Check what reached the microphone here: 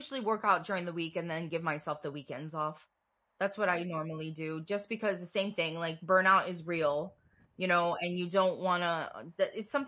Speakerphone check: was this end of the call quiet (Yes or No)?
No